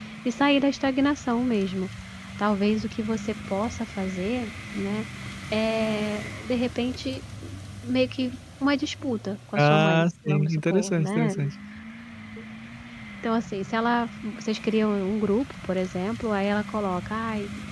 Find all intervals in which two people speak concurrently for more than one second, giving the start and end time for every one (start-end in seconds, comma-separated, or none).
9.6-11.3